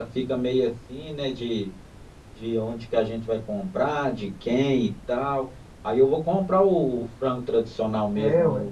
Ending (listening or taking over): taking over